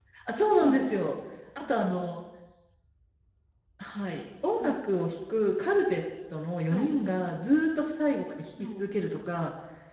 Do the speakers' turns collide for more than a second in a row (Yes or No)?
No